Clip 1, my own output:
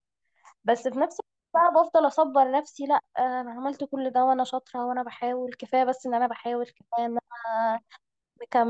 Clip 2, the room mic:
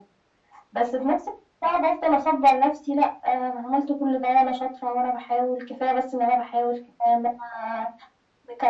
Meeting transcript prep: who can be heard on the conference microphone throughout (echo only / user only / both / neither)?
echo only